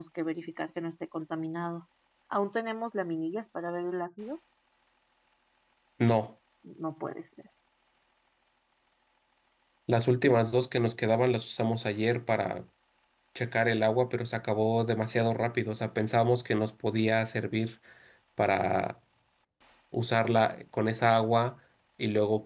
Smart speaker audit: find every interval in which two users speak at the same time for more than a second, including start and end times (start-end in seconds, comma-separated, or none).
none